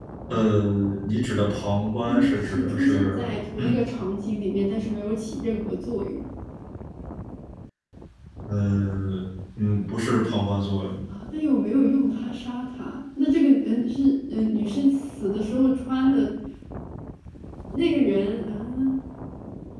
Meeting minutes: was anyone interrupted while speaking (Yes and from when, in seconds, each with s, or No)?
Yes, from 2.1 s